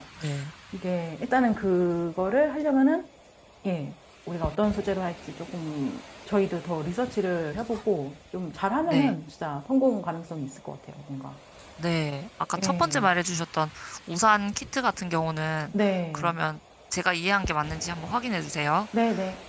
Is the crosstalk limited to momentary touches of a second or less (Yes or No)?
Yes